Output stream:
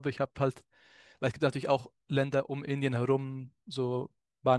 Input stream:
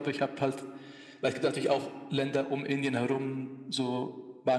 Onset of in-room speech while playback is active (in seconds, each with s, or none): none